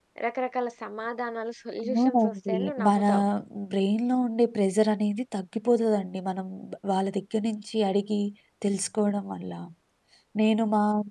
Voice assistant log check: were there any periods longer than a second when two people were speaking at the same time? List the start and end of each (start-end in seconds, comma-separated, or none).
1.8-3.0